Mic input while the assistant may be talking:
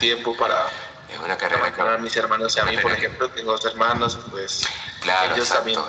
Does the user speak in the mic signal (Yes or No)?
No